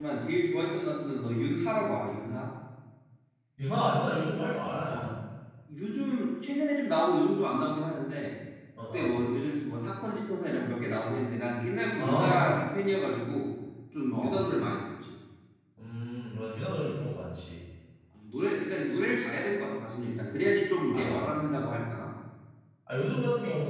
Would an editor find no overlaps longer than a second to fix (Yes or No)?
Yes